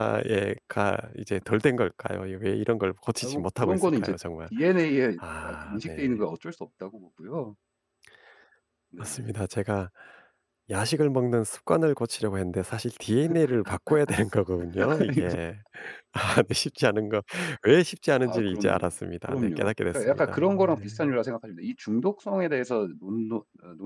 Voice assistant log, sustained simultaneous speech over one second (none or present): present